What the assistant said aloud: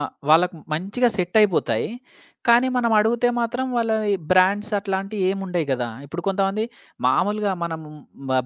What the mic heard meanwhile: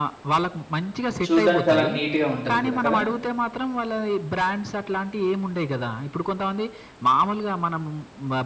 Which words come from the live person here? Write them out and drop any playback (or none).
చూడ్డానికి చాలా నీట్‌గా ఉంటది గూడా కదా!